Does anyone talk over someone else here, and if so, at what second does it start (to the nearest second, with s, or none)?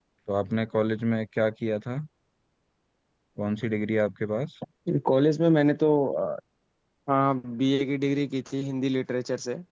none